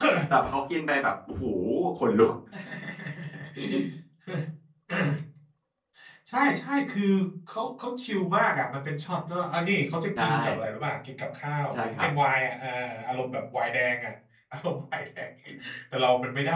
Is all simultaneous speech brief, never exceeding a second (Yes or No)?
Yes